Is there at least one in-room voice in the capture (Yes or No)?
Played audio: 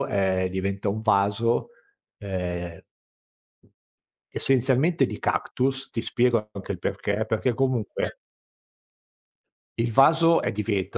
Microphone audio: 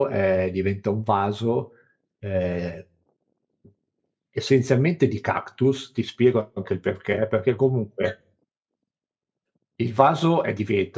No